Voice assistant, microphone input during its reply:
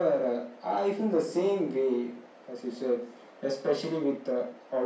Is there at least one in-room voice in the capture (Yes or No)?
No